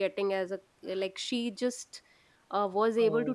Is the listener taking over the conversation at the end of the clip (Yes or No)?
No